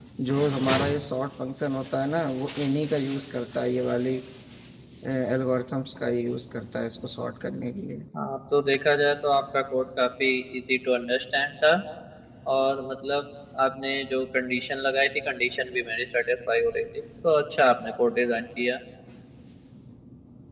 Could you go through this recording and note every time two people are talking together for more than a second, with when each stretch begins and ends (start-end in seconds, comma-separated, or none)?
none